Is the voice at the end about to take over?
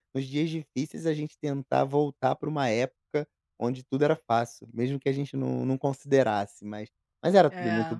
No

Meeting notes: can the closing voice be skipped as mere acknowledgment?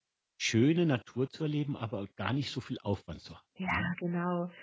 No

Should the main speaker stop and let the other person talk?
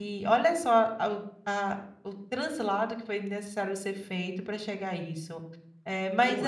No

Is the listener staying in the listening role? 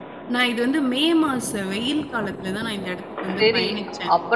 No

